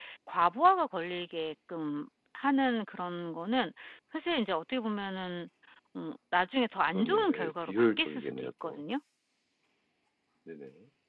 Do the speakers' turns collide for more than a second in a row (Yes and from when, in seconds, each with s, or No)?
Yes, from 7.0 s